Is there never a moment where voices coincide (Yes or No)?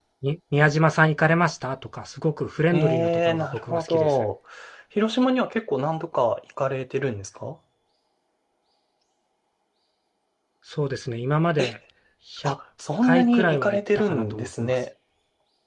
No